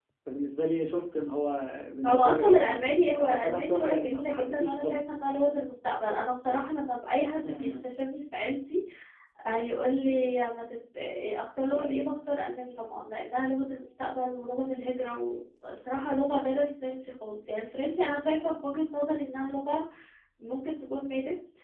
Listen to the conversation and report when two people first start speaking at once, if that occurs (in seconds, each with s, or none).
2.1 s